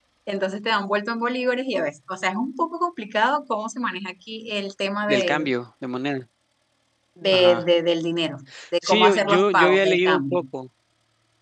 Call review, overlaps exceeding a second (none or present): present